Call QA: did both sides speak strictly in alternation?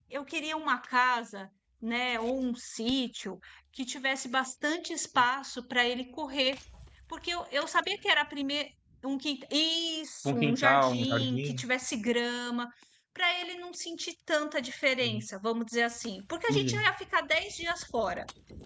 No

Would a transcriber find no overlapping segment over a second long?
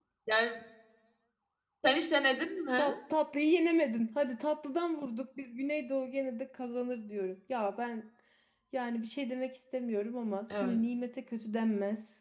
Yes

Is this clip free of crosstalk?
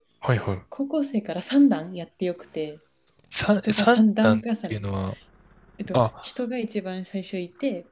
No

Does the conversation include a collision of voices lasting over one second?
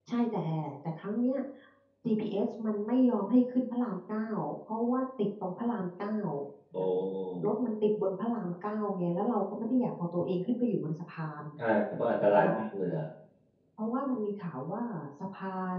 No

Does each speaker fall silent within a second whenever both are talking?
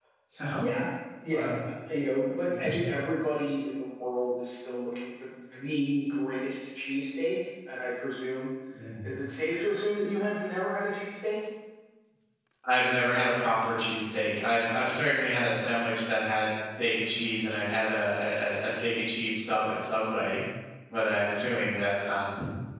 Yes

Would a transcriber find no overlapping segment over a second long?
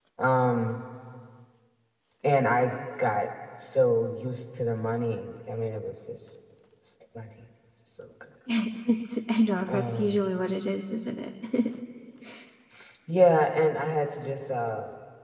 Yes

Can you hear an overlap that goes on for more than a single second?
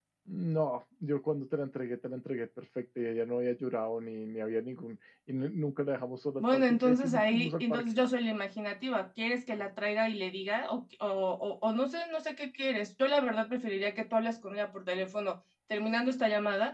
Yes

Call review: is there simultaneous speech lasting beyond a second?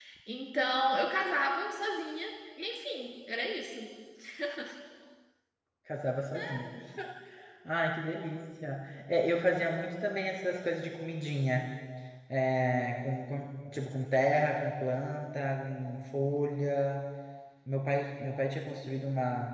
No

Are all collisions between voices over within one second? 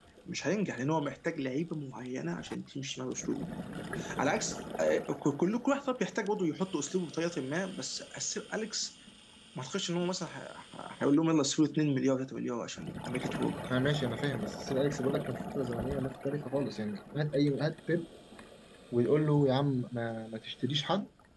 Yes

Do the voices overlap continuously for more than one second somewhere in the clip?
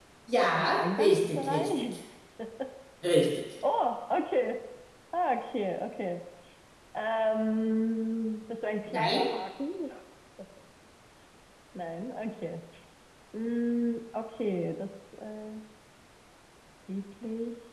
Yes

